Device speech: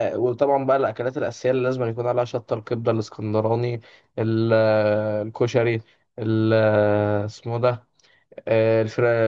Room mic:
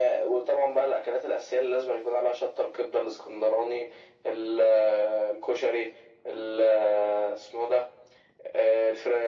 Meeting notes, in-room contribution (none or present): none